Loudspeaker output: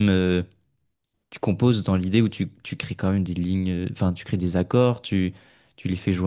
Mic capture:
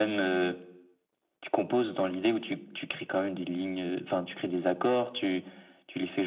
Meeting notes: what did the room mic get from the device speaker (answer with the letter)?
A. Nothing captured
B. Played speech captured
B